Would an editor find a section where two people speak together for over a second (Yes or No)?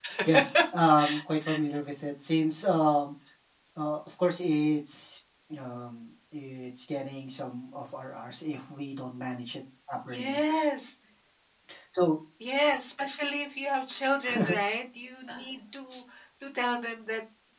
No